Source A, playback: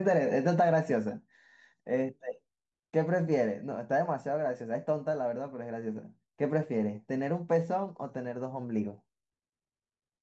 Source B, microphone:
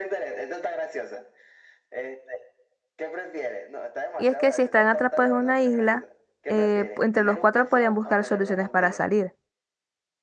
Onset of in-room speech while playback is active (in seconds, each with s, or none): 4.2 s